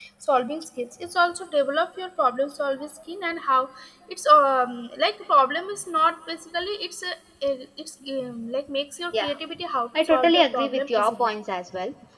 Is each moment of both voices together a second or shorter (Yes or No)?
No